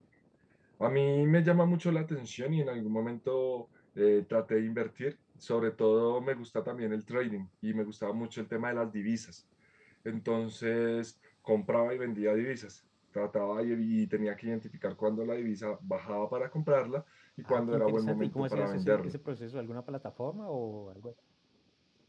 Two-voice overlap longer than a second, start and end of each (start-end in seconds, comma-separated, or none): 17.5-19.1